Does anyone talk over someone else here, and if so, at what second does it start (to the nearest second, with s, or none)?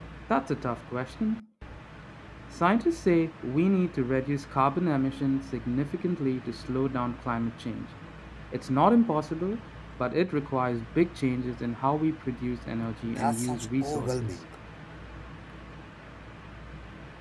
13 s